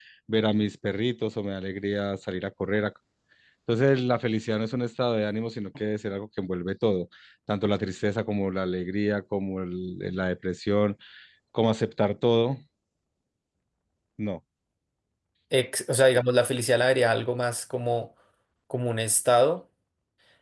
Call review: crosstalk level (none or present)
none